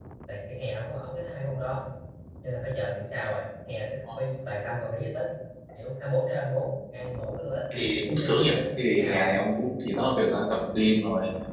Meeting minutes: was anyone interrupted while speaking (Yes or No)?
Yes